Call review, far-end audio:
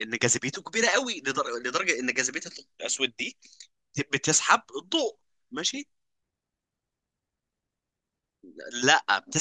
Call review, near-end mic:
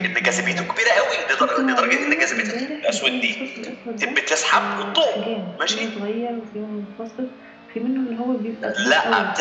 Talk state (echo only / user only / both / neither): both